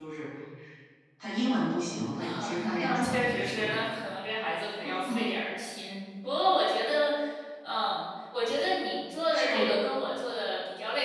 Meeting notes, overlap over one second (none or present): present